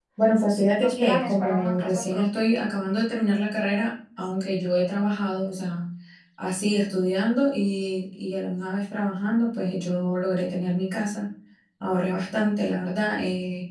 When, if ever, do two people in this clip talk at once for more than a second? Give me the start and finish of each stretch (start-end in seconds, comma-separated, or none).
0.8-2.4